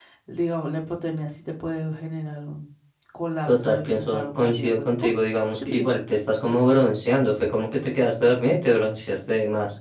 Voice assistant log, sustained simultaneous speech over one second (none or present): present